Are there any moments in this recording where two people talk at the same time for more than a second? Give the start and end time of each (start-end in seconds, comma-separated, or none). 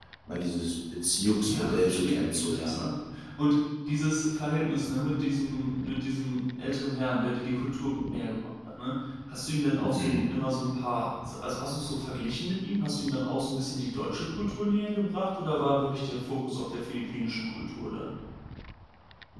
1.4-2.8